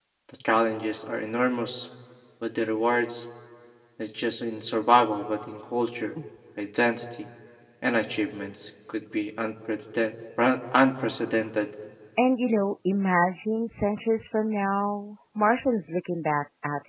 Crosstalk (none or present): none